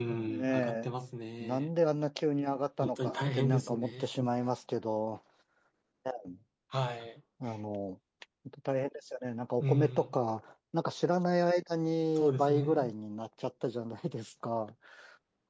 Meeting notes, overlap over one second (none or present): present